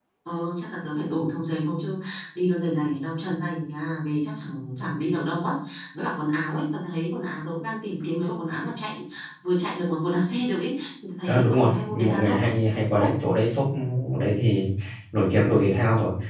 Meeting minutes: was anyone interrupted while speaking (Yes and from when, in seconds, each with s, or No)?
Yes, from 11.3 s